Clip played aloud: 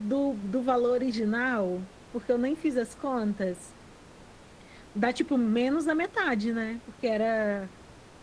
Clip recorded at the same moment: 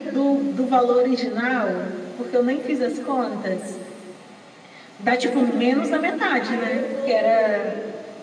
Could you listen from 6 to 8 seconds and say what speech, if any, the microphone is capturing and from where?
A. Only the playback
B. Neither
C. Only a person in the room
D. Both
D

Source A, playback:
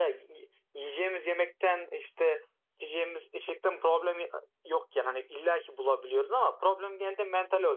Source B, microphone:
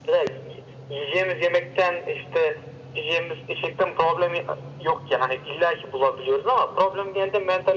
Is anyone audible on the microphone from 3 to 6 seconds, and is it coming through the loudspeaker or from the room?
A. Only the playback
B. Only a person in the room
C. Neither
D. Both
A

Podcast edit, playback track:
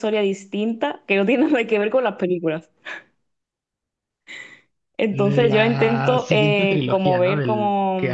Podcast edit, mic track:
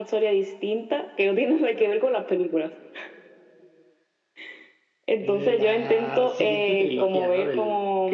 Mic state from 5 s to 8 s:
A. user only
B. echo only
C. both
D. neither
B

